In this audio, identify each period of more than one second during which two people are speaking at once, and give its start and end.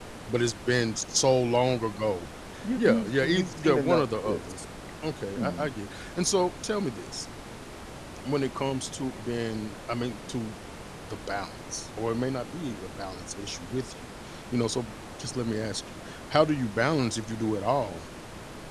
2.8-4.6

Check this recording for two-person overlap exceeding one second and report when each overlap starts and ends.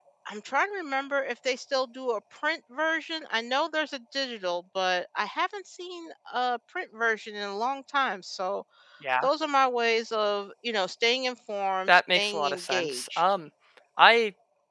11.9-13.2

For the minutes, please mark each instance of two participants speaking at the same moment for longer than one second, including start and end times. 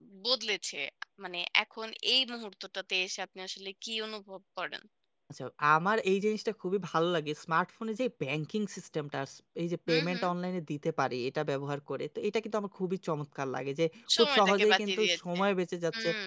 14.2-15.4

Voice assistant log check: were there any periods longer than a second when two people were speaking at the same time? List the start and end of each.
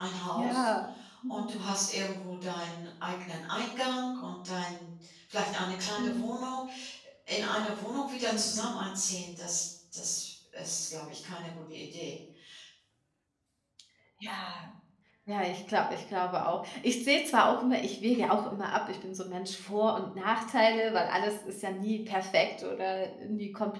none

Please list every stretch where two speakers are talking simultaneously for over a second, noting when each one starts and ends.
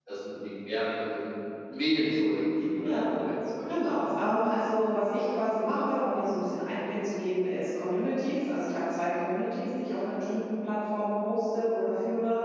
none

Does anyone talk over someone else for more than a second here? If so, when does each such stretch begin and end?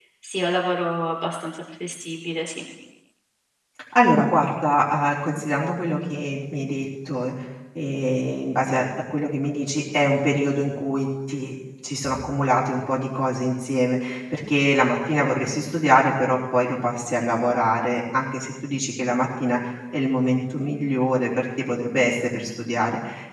none

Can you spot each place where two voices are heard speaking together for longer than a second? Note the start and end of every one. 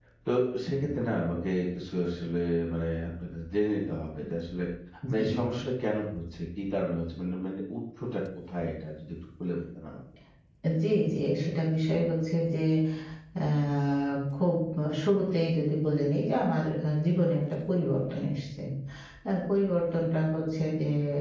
none

